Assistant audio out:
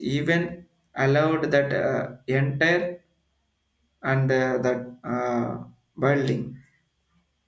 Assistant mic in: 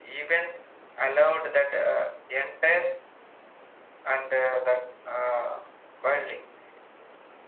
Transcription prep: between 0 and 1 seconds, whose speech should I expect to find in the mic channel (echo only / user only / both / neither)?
echo only